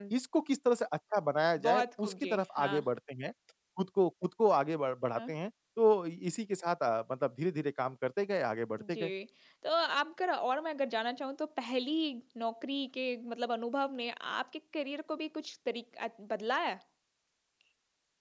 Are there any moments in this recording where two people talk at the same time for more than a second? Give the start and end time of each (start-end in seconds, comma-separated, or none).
1.6-2.9